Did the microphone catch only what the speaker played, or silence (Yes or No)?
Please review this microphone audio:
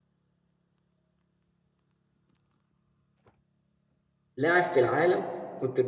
No